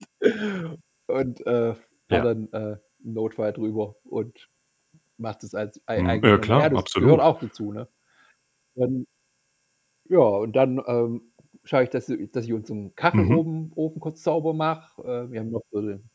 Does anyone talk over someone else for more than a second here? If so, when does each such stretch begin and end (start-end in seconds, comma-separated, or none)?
6.0-7.2